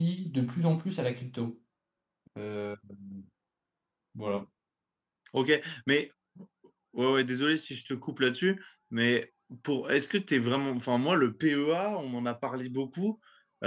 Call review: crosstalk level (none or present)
none